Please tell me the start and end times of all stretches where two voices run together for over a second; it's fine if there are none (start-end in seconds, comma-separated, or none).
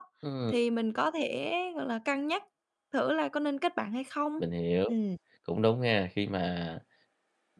none